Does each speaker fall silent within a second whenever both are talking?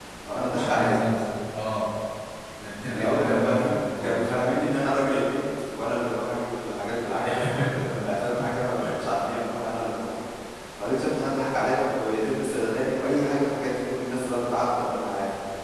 No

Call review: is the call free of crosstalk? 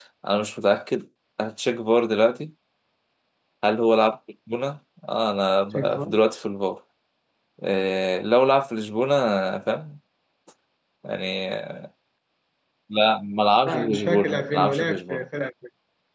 No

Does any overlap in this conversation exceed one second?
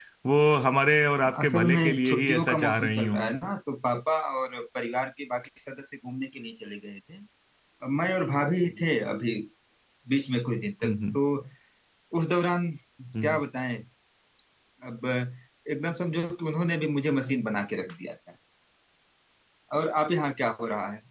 Yes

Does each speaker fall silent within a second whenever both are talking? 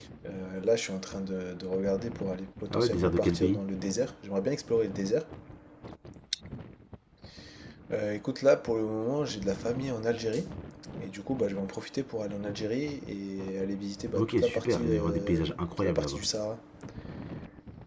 No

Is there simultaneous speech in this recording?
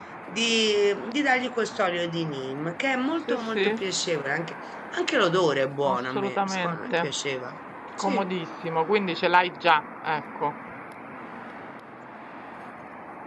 Yes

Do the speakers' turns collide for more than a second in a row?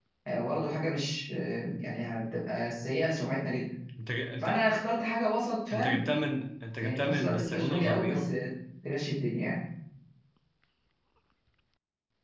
Yes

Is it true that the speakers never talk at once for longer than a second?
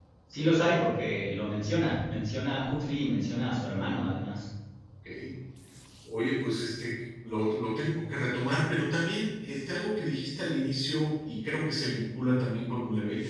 Yes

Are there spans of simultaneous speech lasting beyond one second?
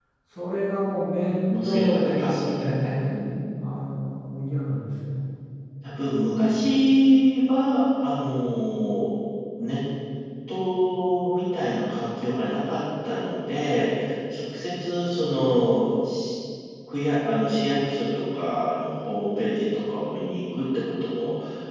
Yes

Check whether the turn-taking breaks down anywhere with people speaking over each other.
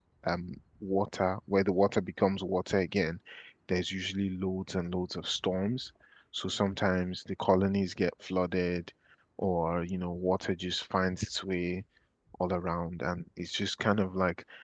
No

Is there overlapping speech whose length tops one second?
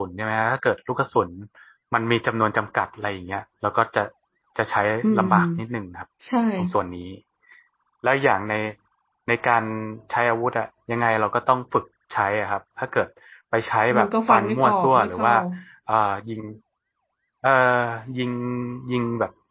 Yes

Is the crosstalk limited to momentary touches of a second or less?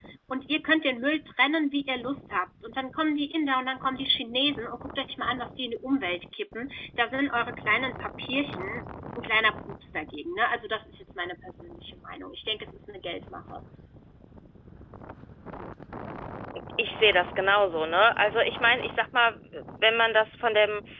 Yes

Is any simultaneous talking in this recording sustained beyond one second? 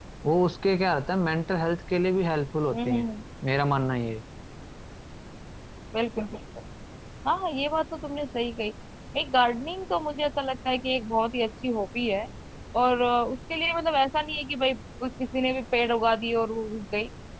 No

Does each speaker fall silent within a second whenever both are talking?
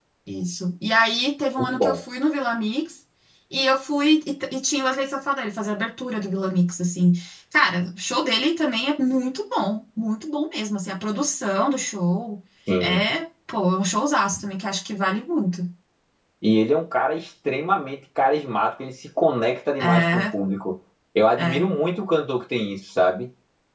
Yes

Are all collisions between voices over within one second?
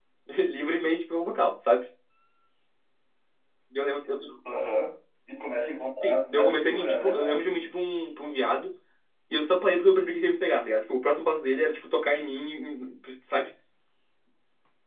No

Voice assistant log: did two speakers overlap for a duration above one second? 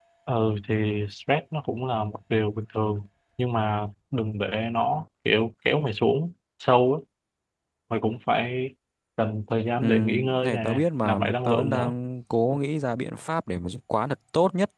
Yes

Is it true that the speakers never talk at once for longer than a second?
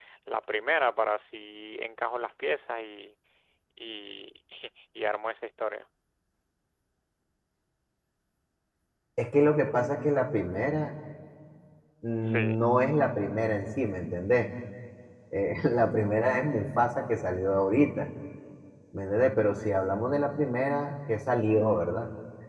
Yes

